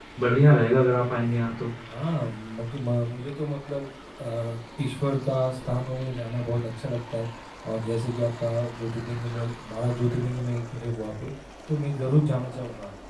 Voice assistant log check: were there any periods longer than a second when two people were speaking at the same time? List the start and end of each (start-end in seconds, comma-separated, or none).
none